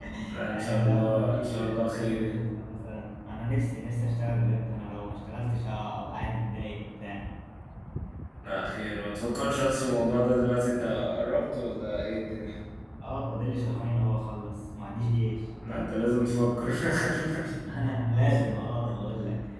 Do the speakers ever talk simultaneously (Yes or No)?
Yes